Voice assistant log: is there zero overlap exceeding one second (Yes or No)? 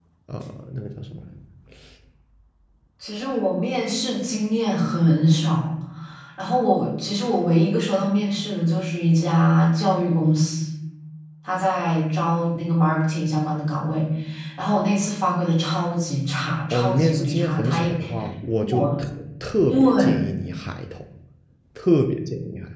No